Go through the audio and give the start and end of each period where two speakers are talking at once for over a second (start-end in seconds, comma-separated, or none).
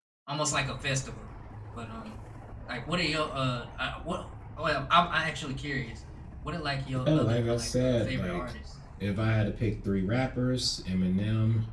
7.1-8.5